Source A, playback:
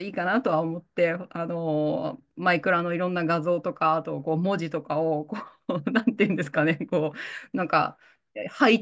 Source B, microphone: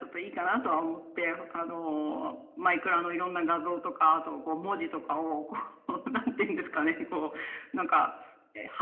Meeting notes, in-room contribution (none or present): none